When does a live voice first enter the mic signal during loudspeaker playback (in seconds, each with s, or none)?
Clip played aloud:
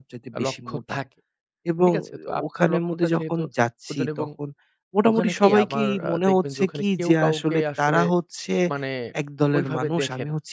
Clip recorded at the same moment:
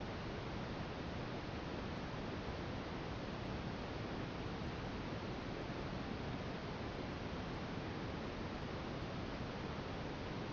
none